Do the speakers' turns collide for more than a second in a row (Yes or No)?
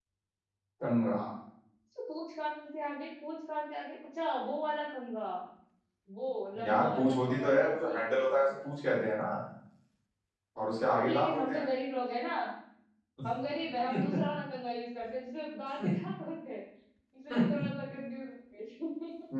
Yes